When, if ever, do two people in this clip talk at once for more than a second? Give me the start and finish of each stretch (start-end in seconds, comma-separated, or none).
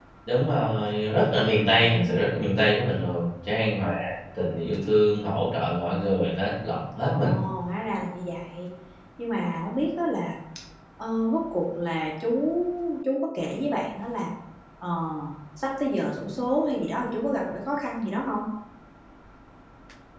none